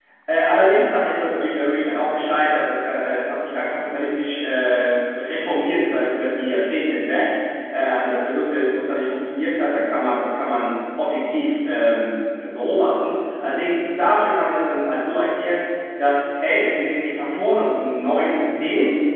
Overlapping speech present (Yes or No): No